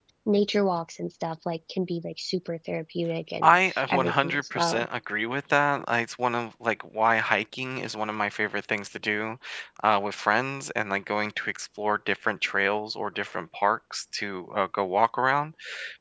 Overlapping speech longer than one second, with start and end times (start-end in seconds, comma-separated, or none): 3.4-4.9